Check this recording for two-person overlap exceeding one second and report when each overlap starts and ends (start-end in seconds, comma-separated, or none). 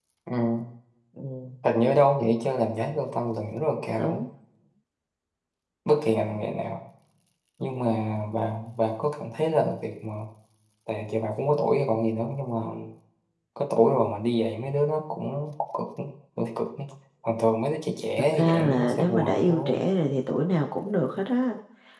18.4-19.9